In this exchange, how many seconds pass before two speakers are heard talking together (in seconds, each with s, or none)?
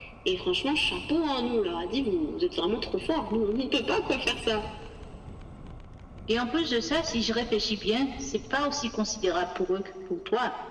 none